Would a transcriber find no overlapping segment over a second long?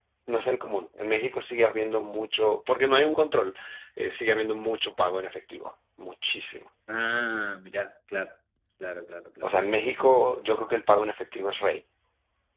Yes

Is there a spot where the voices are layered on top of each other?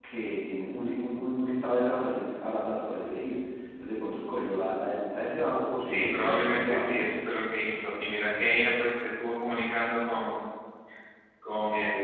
Yes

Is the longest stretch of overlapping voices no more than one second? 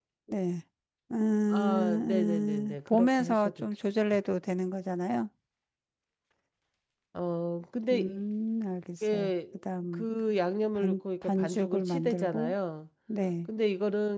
No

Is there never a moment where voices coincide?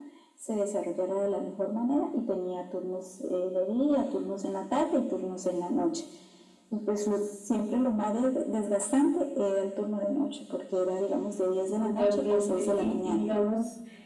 No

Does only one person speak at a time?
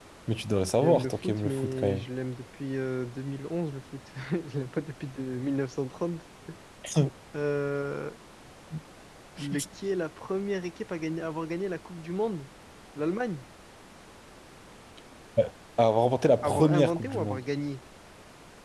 No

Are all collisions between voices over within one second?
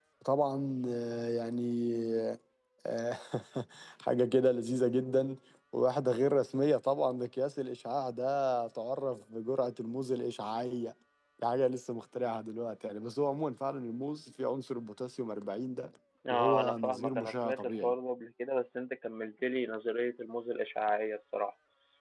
No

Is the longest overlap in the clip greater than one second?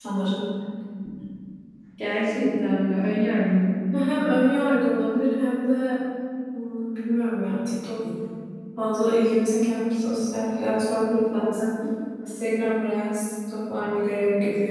No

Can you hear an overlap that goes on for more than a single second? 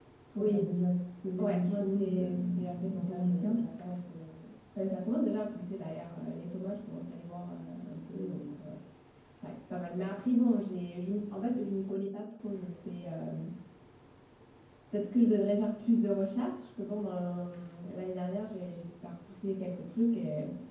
Yes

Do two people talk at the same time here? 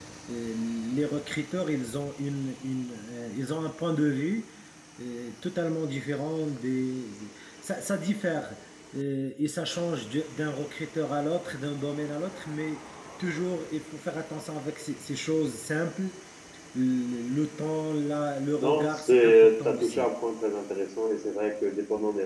Yes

